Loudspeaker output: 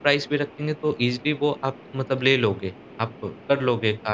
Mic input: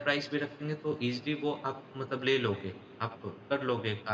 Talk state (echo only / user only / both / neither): echo only